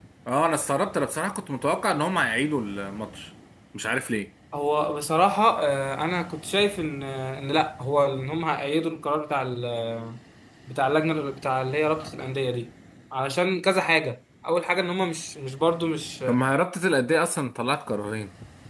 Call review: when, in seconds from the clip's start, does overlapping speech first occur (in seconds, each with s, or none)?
none